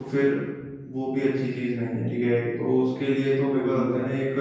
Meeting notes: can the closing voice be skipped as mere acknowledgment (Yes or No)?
No